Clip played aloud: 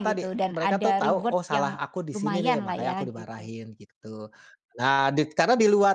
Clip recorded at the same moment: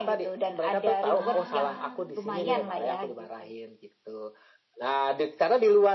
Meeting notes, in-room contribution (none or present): present